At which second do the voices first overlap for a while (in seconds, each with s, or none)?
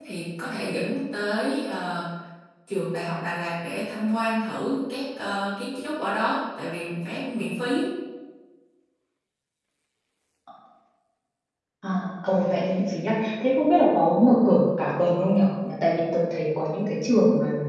none